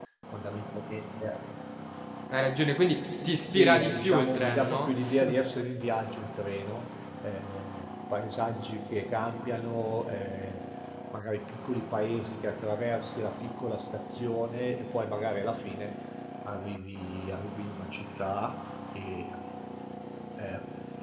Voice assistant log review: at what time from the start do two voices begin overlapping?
4 s

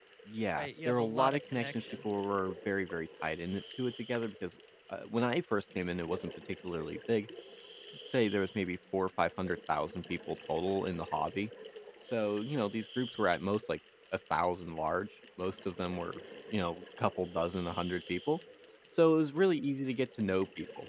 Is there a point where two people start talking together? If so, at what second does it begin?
1 s

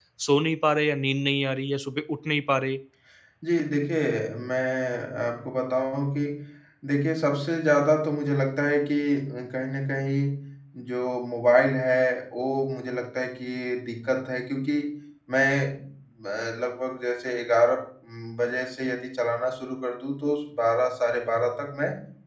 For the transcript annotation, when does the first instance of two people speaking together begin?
none

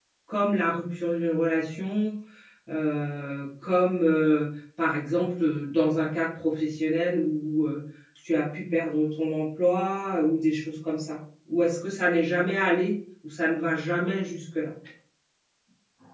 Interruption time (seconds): none

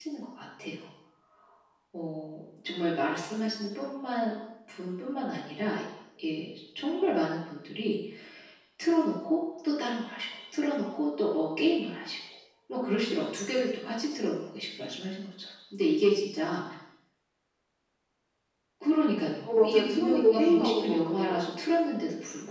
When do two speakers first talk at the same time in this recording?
19 s

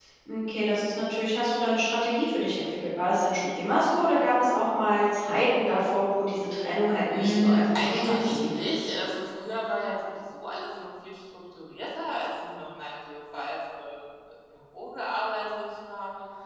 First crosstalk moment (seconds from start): 7 s

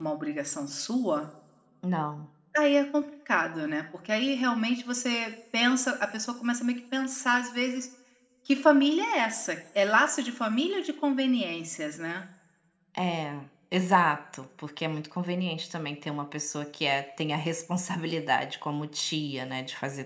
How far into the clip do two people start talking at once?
none

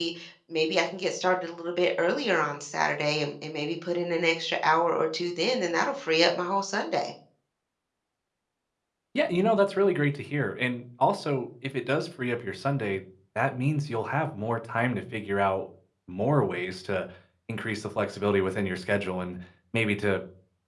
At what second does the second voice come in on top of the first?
none

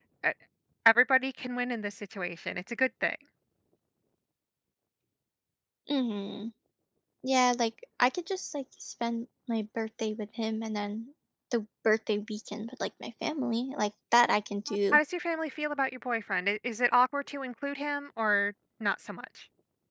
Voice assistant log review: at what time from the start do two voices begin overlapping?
none

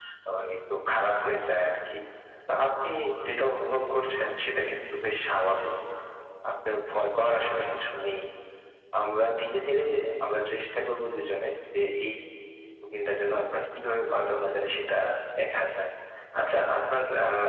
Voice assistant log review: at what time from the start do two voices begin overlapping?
none

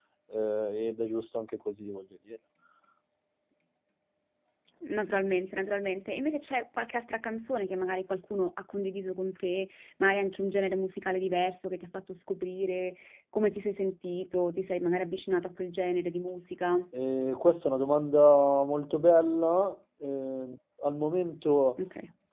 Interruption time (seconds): none

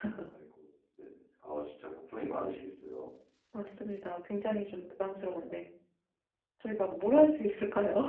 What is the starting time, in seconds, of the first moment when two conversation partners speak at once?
none

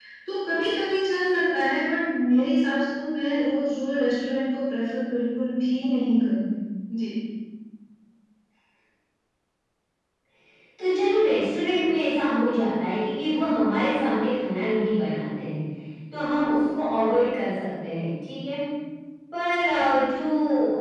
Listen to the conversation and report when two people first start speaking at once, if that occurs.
none

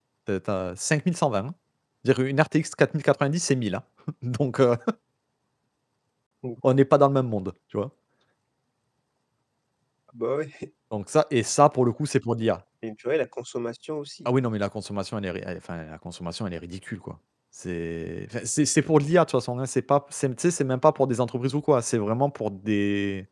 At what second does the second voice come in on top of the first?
none

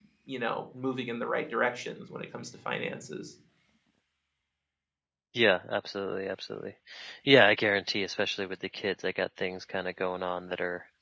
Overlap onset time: none

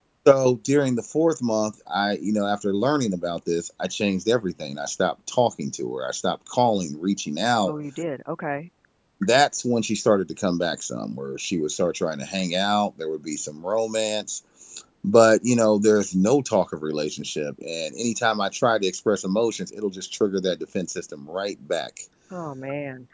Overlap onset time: none

